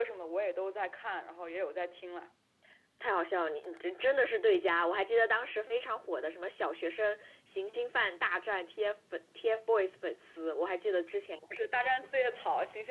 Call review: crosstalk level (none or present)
none